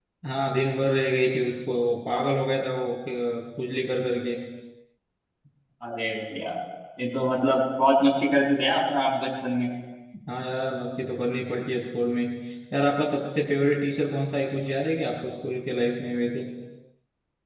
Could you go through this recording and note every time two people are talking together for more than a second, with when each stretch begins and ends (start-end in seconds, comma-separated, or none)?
none